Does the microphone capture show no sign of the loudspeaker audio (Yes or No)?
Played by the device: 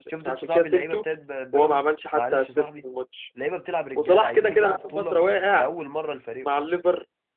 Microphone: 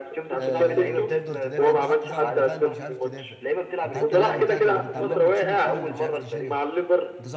No